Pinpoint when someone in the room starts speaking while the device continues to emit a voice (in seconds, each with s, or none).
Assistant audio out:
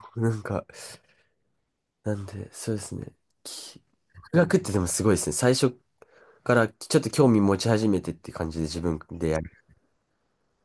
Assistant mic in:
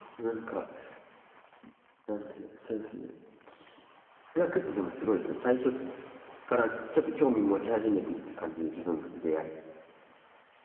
none